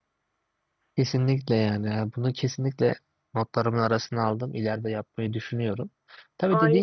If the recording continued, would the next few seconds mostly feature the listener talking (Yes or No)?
No